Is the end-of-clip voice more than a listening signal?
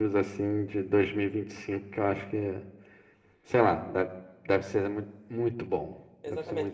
Yes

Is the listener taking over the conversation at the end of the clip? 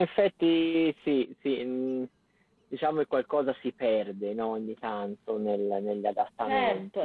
Yes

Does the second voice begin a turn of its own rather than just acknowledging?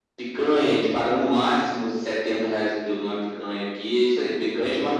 No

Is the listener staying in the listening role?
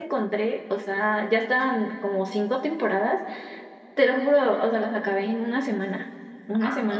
Yes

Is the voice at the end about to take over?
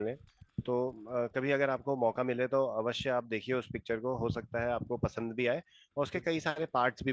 No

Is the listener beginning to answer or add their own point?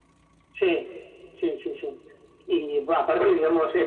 No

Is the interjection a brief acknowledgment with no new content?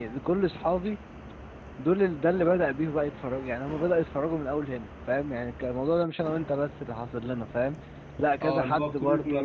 No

